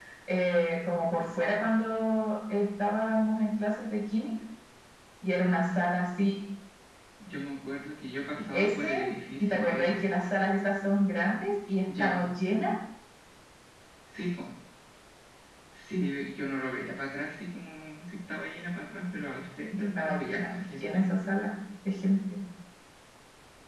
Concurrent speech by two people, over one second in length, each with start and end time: 19.8-21.0

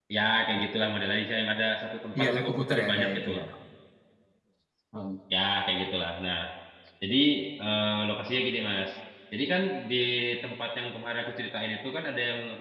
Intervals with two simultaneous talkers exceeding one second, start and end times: 2.2-3.4

